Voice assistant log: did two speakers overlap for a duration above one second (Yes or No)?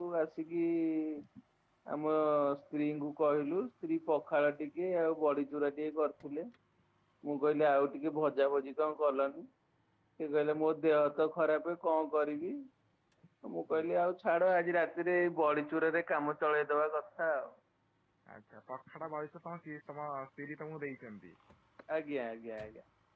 No